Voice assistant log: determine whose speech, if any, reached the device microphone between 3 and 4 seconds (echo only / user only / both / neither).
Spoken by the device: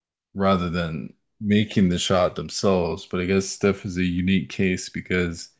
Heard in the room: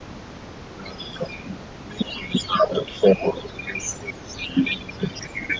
echo only